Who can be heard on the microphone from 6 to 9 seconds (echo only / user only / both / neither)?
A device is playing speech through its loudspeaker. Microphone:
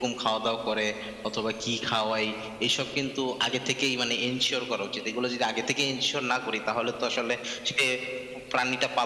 echo only